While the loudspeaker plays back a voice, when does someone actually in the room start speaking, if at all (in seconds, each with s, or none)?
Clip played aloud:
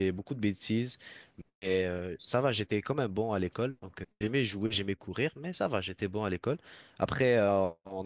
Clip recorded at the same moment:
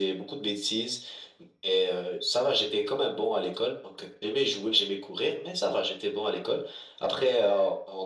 none